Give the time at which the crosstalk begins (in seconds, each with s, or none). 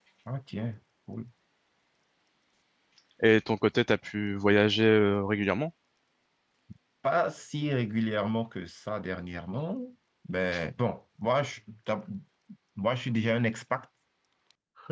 none